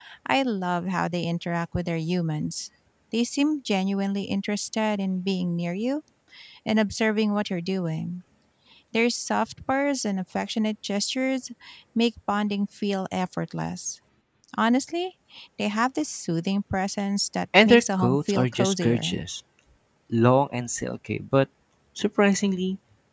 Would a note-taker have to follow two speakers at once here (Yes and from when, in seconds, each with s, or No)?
Yes, from 17.5 s